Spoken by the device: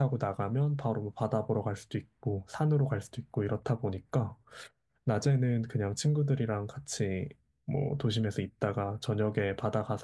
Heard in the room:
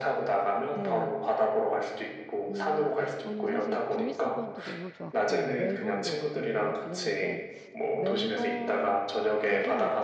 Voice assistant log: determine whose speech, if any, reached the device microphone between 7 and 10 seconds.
both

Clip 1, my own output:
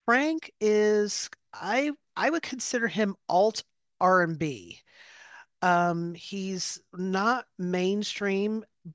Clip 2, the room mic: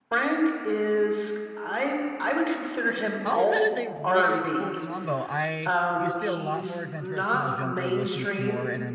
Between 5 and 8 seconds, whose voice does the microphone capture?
both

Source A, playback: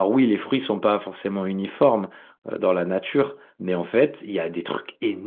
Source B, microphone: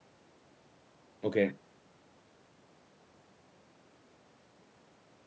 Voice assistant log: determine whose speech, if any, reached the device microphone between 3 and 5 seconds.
neither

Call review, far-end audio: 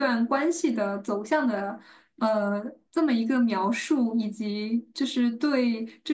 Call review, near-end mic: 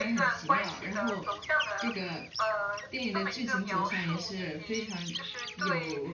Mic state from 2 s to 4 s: both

